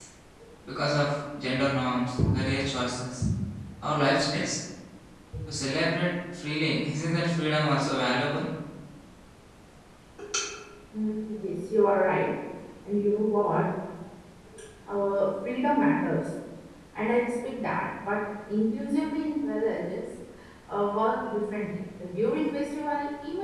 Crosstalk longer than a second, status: none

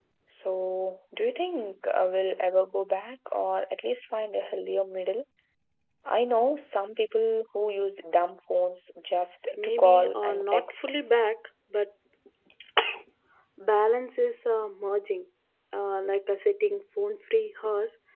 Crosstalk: present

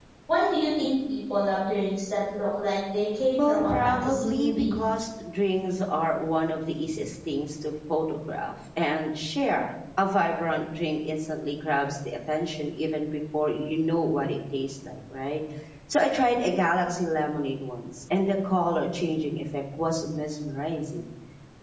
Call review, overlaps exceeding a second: present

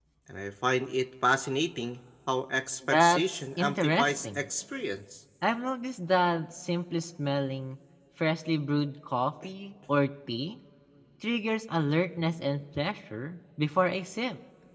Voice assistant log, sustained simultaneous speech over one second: present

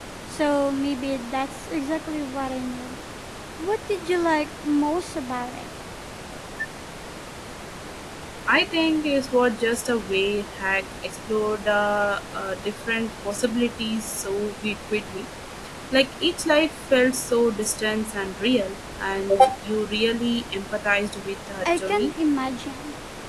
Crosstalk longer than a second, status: none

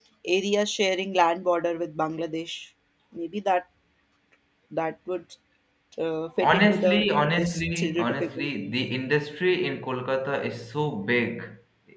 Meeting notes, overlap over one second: present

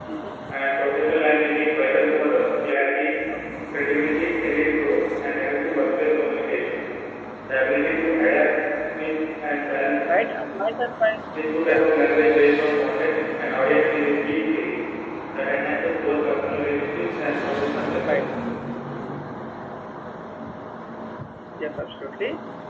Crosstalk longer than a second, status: none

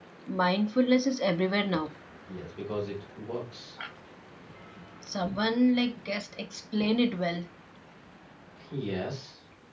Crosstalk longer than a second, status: none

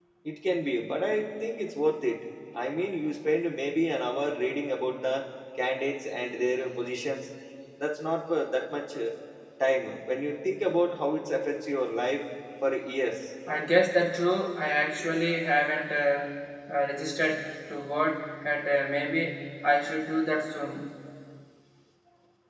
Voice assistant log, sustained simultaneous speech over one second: none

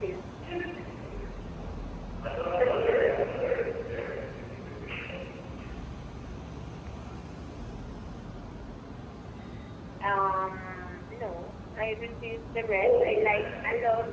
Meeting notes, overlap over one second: present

